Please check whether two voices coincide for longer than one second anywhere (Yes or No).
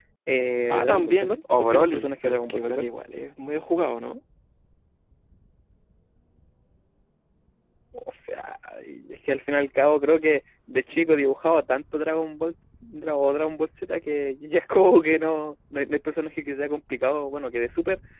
Yes